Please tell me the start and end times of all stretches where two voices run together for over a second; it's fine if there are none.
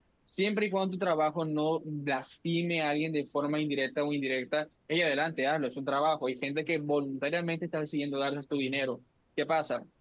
none

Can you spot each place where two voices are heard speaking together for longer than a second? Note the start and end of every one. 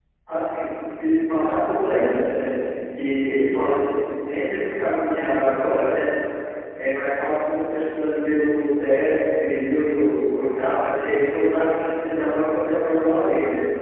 none

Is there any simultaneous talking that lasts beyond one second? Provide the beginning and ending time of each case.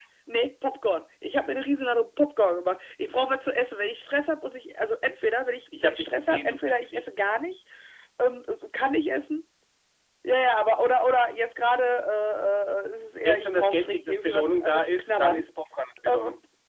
5.8-7.0, 13.2-15.4

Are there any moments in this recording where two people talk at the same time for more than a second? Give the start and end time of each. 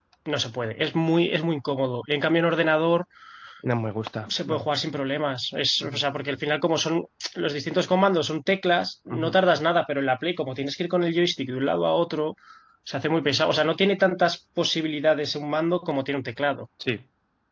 none

